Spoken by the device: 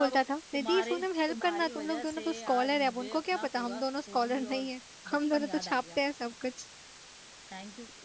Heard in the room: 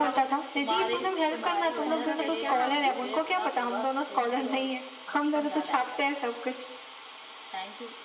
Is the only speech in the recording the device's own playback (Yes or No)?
No